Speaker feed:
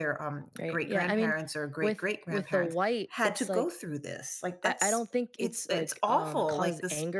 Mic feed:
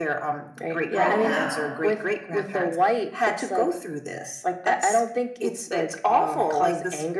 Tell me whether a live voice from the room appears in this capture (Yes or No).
Yes